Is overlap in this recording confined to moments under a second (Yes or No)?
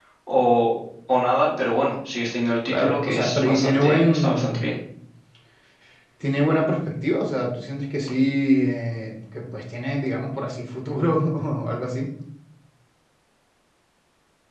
No